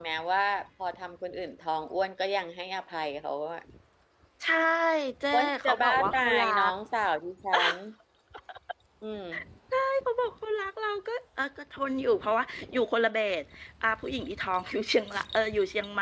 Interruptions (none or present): present